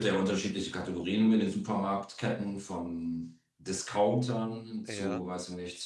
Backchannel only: Yes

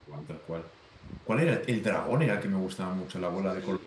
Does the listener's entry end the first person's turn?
Yes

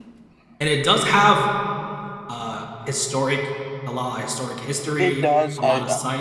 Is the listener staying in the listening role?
No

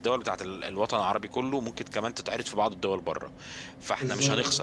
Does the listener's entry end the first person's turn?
No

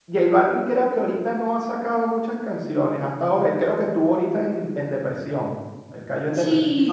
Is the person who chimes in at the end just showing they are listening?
No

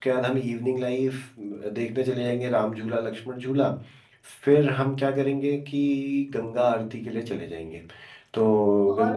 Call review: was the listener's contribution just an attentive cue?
No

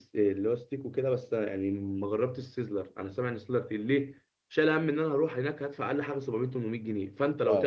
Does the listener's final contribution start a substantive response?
No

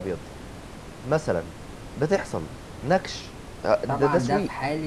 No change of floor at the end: No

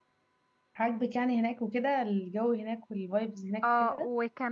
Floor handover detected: Yes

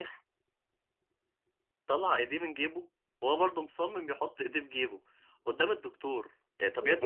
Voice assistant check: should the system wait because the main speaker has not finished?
No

